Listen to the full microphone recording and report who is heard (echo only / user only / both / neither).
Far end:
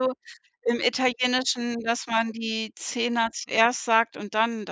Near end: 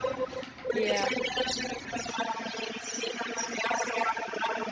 both